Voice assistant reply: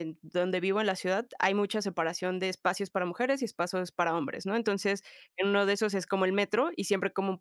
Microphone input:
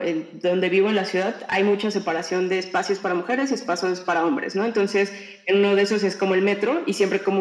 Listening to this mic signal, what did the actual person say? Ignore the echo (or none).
none